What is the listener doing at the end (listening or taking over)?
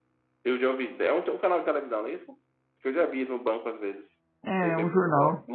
taking over